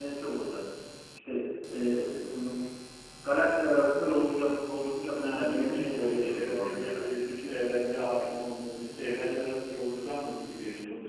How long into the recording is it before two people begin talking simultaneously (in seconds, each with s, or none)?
5.2 s